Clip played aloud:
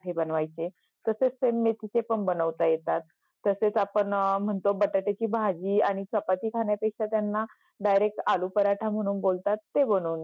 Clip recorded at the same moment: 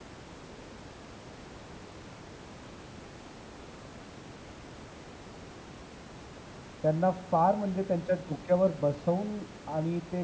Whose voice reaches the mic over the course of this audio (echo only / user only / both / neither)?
user only